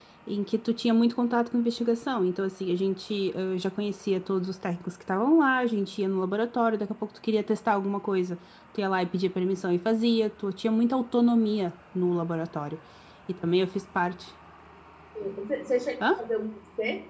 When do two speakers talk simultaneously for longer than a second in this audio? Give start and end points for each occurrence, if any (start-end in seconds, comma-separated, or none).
none